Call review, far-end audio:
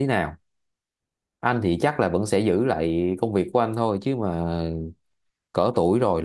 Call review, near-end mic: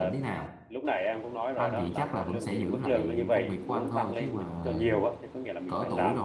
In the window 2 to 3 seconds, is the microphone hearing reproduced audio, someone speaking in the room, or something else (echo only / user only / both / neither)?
both